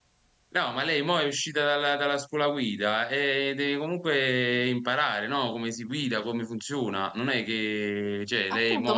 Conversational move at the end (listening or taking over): taking over